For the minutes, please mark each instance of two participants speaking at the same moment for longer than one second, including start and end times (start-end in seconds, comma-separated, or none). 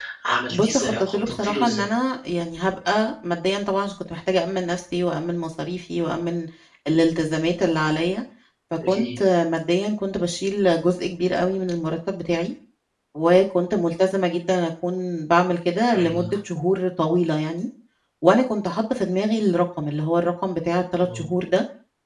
0.5-1.9